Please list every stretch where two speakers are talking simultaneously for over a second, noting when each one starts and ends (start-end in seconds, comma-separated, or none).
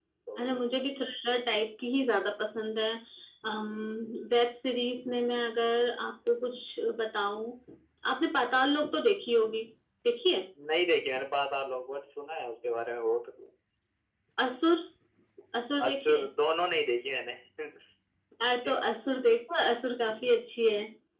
none